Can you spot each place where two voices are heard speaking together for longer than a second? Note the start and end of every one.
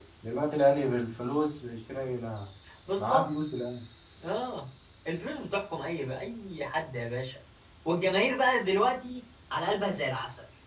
none

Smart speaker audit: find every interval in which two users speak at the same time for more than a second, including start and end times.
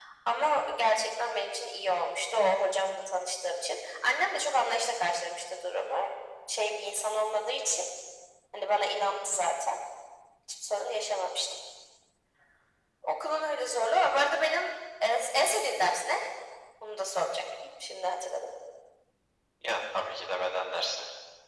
none

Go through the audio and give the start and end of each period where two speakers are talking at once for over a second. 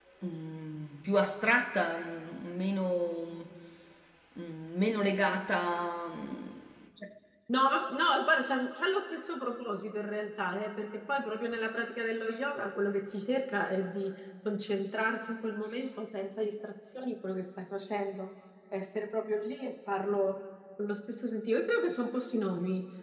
none

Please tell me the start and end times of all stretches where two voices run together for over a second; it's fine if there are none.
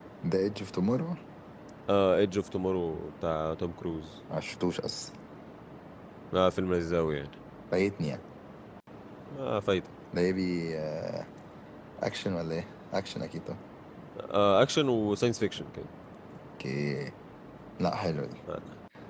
none

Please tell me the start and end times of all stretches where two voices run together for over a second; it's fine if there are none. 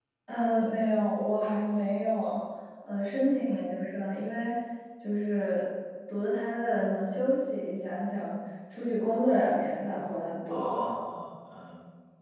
none

